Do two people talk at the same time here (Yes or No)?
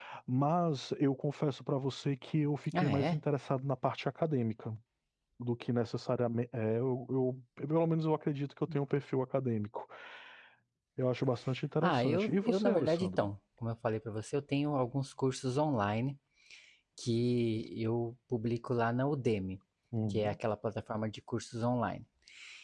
Yes